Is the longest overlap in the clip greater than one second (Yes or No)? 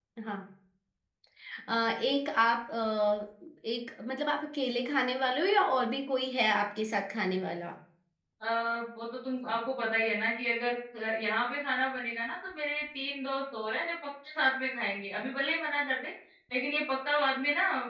No